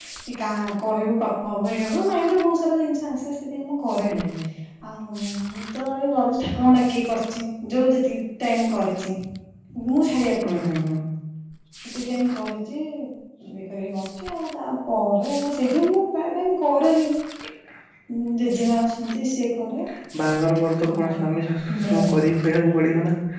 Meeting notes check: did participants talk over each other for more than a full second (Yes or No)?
No